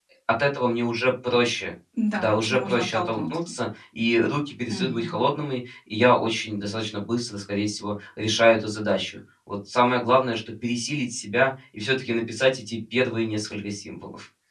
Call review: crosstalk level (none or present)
present